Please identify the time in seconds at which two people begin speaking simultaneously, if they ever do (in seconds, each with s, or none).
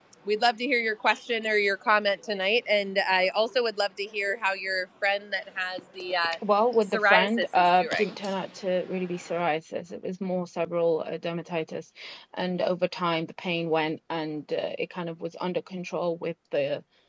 6.8 s